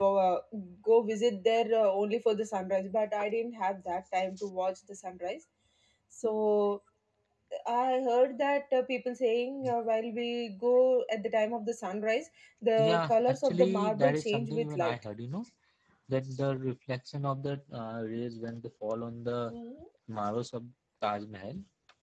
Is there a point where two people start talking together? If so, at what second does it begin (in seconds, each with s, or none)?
12.8 s